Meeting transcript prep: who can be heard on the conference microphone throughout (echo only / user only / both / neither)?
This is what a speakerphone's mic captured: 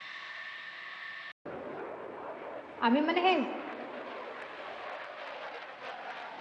user only